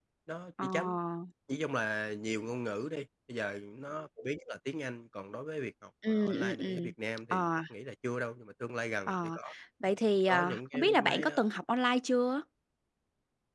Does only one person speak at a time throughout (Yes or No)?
No